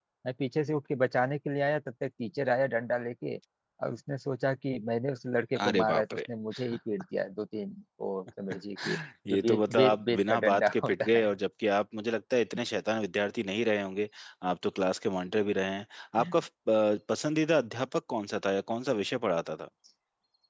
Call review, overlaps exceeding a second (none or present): present